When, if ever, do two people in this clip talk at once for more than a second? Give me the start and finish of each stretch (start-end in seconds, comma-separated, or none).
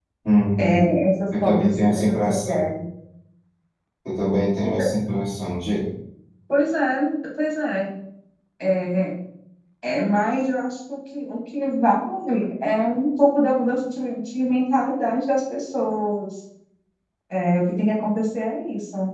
1.4-2.7